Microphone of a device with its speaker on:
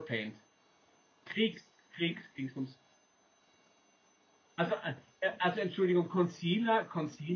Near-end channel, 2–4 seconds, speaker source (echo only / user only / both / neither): user only